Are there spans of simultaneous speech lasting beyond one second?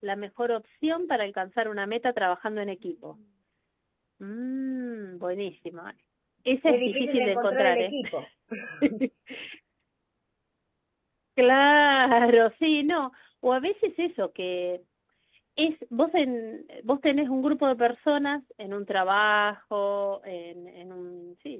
Yes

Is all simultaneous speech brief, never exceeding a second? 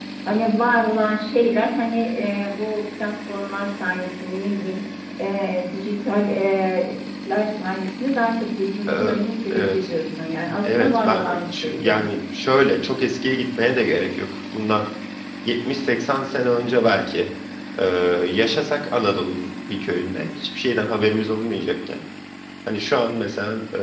No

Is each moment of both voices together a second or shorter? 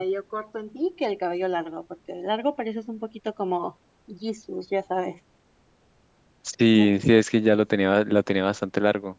Yes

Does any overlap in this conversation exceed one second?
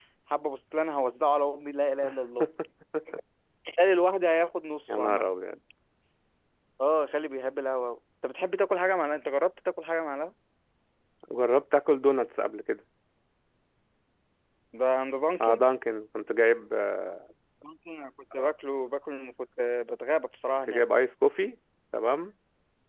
No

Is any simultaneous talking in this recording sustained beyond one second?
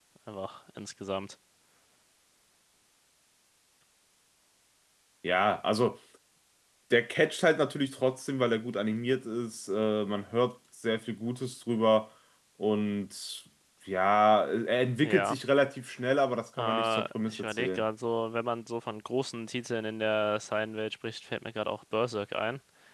Yes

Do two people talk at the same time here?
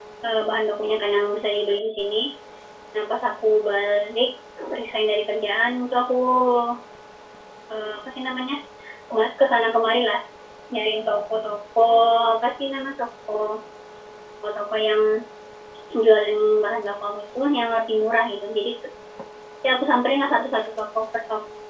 No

